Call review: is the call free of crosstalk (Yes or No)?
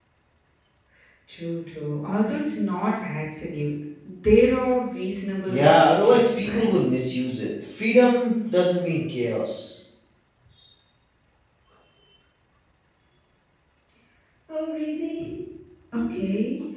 No